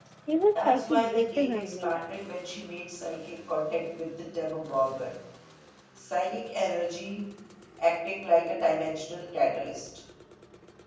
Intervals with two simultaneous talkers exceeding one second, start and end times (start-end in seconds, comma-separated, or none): 0.6-2.0